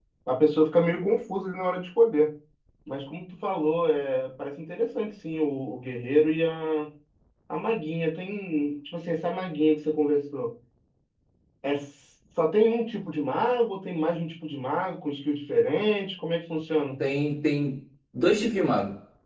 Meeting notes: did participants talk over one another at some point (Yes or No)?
No